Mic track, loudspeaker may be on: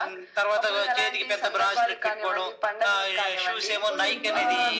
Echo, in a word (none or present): present